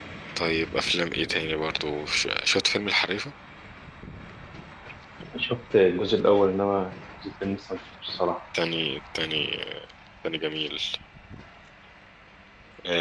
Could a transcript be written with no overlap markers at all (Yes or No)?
Yes